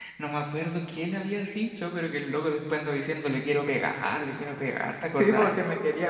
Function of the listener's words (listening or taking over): taking over